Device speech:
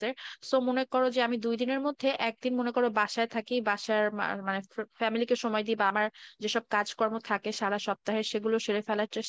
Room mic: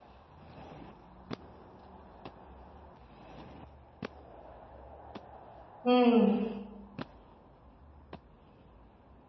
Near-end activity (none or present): present